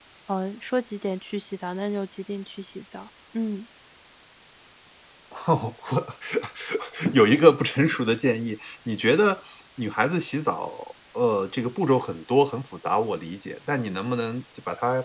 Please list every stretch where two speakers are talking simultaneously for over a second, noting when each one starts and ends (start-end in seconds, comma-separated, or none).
none